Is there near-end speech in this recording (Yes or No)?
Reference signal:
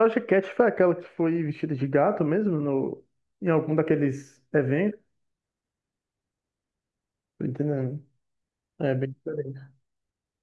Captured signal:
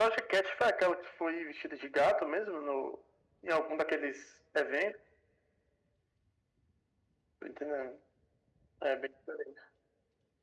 No